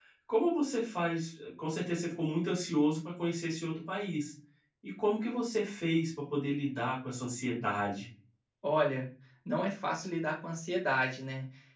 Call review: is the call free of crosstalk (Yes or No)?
Yes